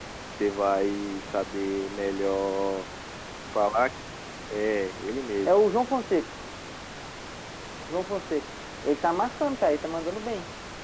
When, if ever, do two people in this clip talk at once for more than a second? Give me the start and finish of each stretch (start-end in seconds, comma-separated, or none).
none